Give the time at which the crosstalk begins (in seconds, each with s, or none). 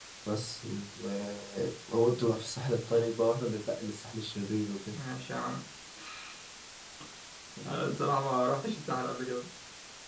none